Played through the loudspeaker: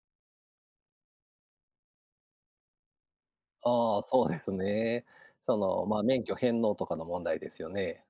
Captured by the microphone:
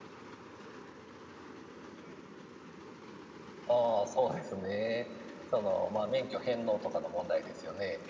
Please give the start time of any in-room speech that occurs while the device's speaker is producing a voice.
none

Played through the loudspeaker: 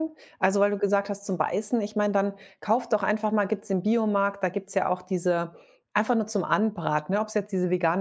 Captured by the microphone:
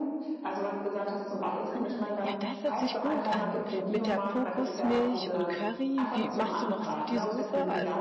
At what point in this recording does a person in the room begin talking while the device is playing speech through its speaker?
1.8 s

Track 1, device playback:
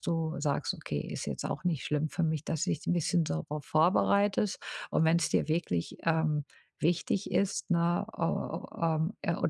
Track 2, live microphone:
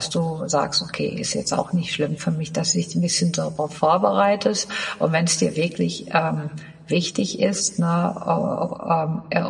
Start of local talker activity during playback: none

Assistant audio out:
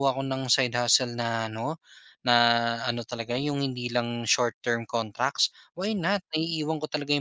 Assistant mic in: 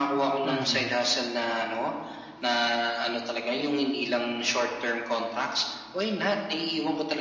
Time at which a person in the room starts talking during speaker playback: 0.4 s

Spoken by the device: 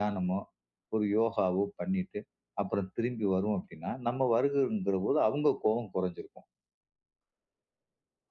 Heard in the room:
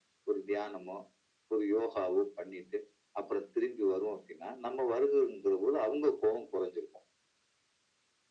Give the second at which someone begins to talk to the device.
none

